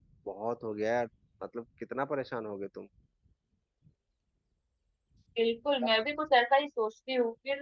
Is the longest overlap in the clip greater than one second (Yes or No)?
No